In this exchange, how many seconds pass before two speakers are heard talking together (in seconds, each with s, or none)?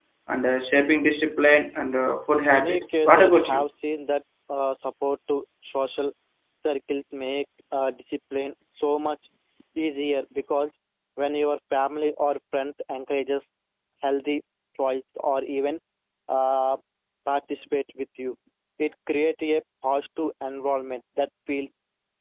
2.3 s